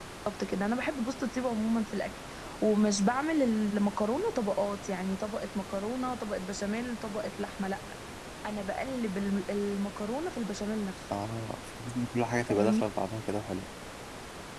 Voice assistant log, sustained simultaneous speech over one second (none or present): none